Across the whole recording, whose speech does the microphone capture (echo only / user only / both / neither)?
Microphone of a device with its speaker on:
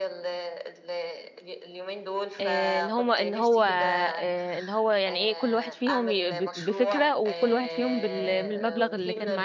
both